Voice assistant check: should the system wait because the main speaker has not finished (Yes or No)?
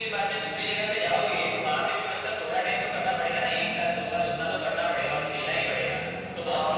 No